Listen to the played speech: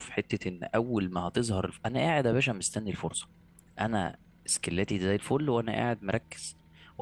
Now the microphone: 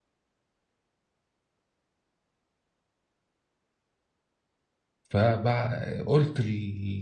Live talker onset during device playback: 5.1 s

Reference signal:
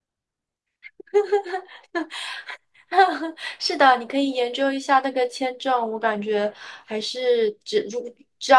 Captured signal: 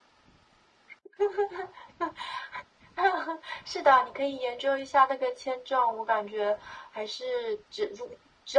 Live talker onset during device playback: none

